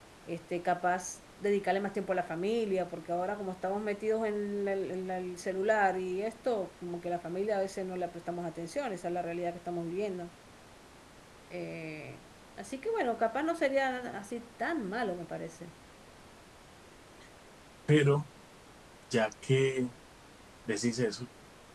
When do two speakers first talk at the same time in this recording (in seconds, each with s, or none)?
none